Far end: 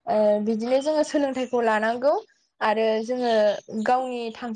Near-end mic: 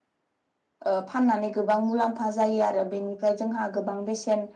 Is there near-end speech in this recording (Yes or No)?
Yes